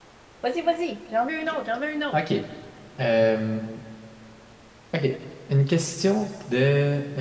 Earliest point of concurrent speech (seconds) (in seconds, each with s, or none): none